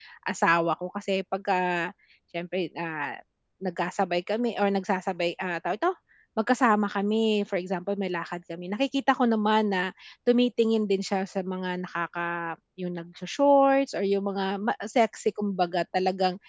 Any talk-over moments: No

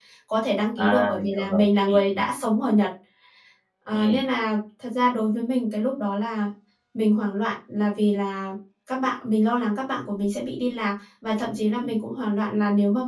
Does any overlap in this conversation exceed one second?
Yes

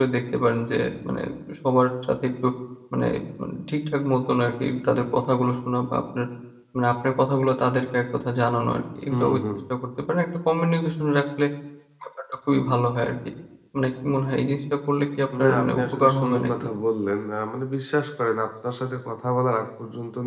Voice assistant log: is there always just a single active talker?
No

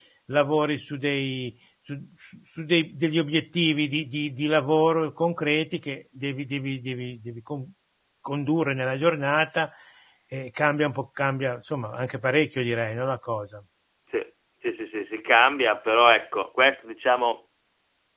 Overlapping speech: No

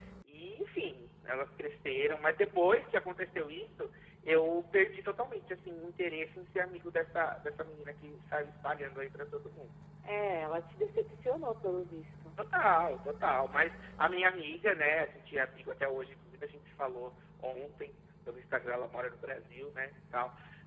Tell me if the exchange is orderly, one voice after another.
Yes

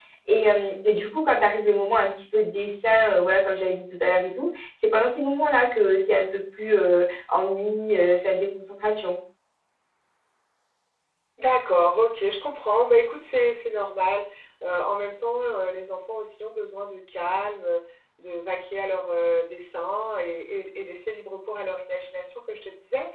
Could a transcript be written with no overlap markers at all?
Yes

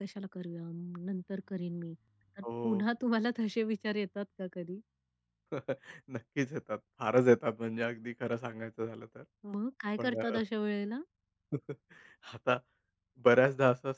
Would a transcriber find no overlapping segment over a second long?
Yes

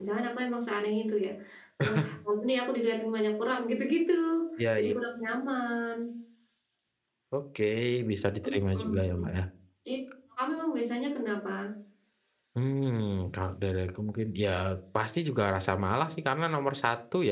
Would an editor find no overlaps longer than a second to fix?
Yes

